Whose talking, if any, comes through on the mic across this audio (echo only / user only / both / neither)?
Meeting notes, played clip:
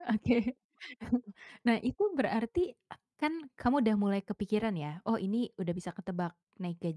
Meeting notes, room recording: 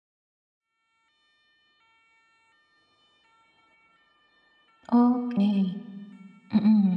user only